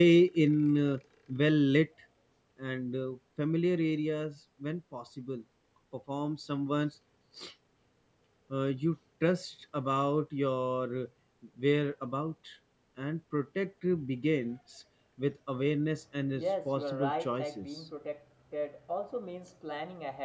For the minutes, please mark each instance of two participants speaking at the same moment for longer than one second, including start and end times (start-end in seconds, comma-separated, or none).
16.4-17.7